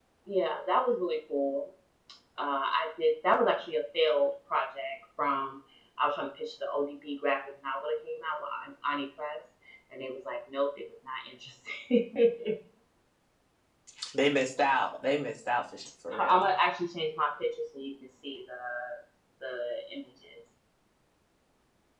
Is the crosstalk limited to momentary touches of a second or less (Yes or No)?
Yes